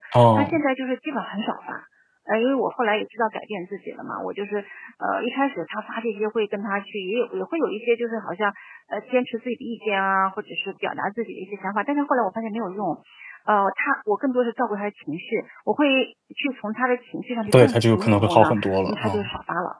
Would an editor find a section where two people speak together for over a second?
Yes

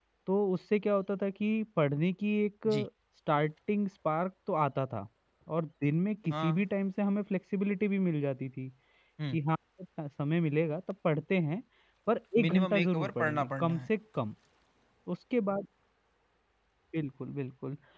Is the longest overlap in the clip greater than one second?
Yes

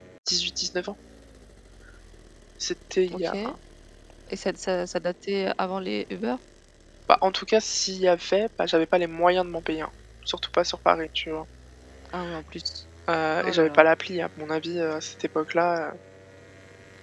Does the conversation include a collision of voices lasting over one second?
No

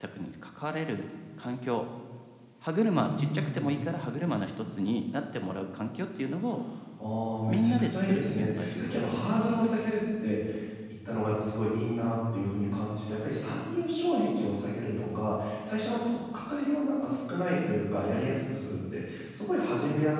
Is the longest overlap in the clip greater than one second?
Yes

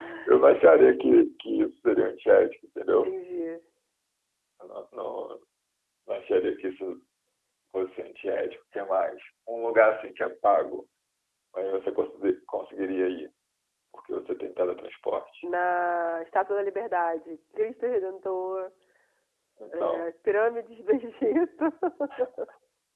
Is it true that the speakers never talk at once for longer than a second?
Yes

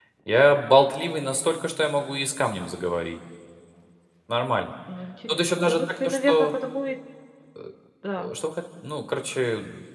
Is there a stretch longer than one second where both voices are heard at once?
Yes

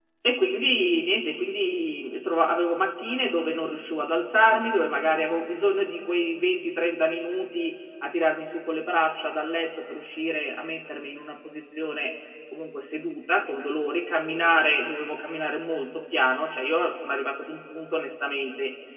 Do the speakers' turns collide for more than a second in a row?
No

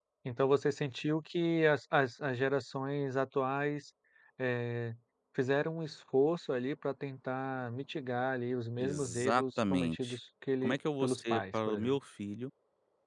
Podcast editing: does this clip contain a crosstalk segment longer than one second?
Yes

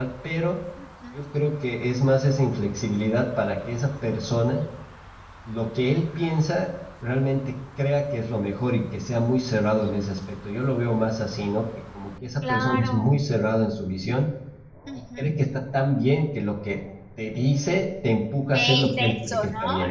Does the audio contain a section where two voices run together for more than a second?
Yes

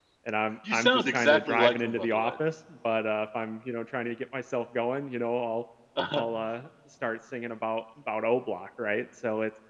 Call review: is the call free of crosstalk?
No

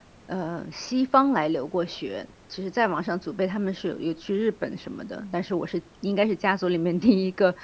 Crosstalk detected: No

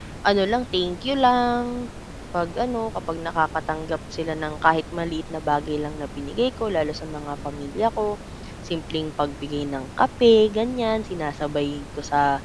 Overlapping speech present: No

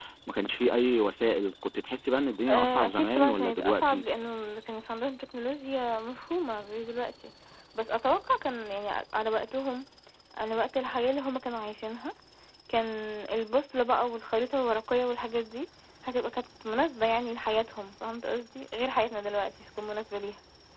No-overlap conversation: No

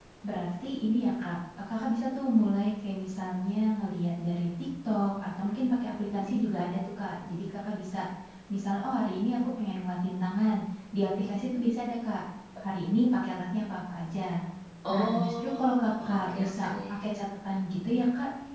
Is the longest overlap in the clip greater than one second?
Yes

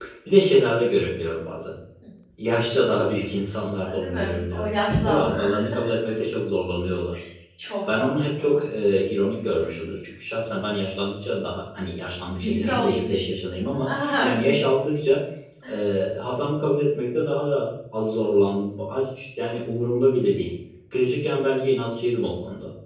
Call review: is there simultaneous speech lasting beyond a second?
Yes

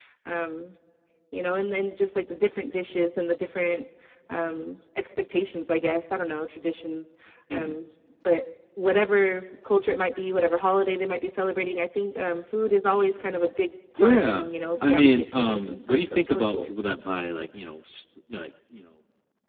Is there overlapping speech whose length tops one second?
Yes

